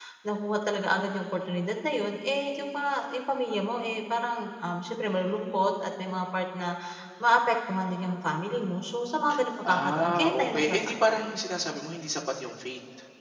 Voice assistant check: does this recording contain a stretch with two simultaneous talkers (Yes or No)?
Yes